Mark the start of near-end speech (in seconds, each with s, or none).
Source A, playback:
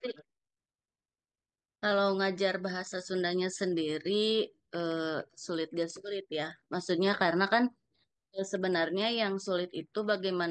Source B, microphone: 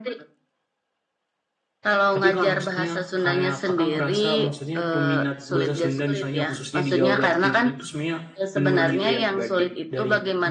2.1 s